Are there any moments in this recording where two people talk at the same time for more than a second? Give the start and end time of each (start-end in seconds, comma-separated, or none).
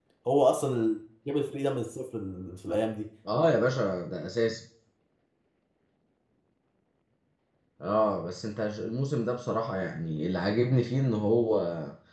none